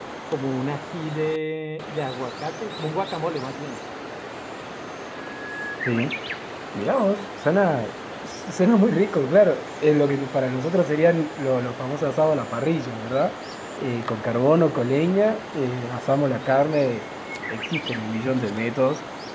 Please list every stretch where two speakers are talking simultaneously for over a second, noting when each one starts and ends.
none

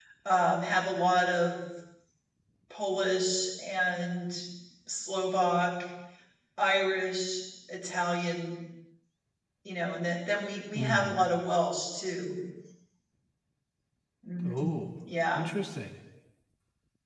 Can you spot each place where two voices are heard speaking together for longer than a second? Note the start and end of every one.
none

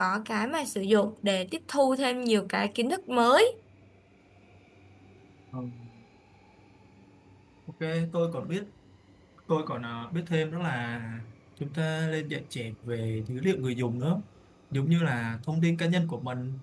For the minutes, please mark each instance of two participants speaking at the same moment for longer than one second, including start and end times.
none

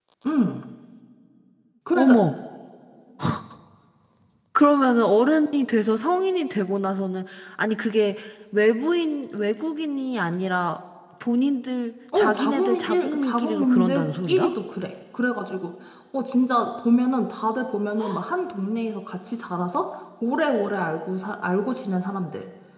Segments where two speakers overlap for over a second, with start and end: 12.2-14.5

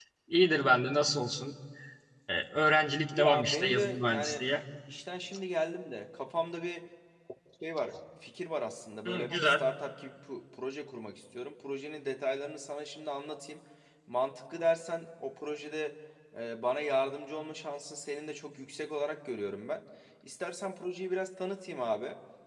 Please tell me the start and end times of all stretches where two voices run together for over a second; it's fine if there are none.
3.2-4.5

